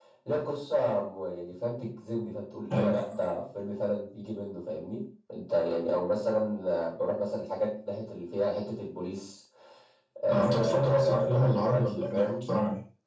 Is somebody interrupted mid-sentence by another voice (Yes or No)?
Yes